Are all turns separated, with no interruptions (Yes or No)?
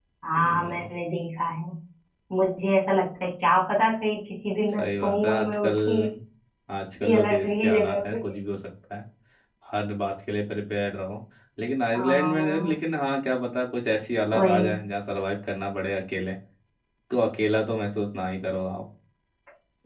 No